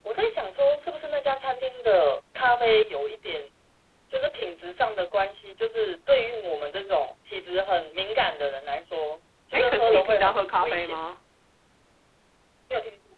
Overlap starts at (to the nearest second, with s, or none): 10 s